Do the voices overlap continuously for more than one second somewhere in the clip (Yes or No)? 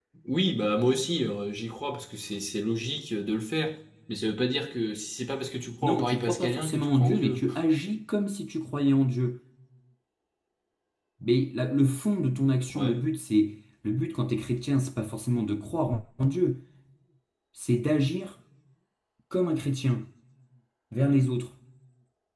Yes